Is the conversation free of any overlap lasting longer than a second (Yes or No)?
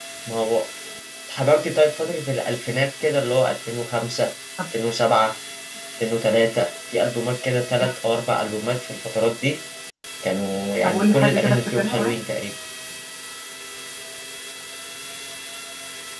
No